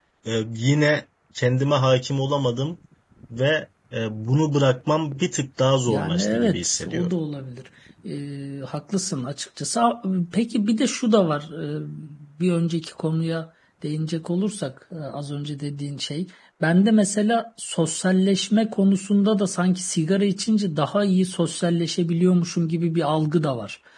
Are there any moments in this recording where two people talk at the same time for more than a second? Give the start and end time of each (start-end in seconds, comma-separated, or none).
5.9-7.1